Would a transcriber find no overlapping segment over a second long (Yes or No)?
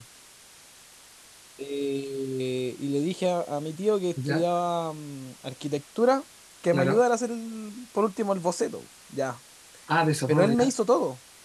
Yes